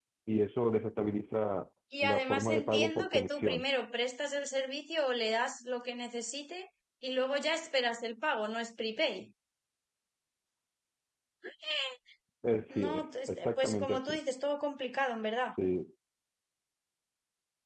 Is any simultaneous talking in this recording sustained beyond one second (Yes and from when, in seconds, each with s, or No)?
Yes, from 2.0 s